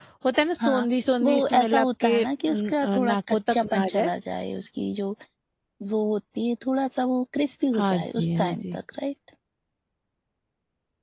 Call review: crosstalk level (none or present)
present